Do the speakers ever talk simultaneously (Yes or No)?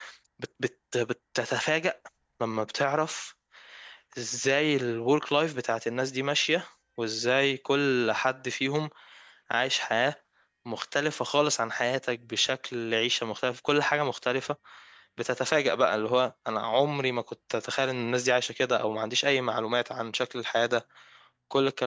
No